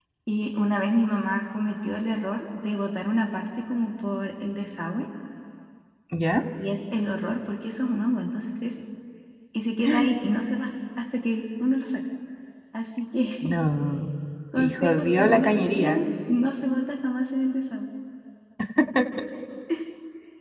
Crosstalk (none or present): present